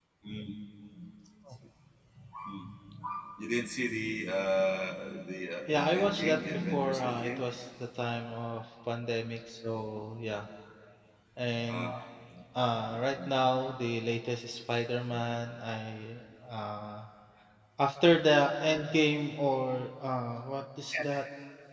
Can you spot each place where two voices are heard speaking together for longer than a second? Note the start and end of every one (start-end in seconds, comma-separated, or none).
5.7-7.4